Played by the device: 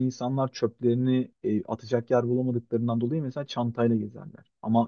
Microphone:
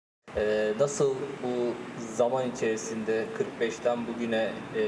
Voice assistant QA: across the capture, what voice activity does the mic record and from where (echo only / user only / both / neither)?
user only